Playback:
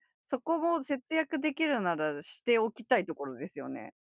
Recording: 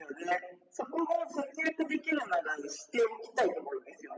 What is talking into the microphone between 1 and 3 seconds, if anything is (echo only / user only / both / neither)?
echo only